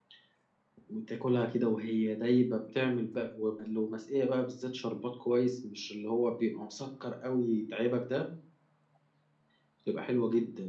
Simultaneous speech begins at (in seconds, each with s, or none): none